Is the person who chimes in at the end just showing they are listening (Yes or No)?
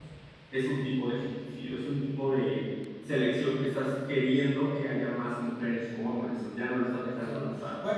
No